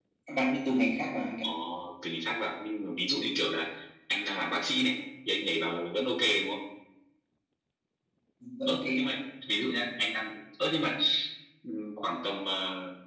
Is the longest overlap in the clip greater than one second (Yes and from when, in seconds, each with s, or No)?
No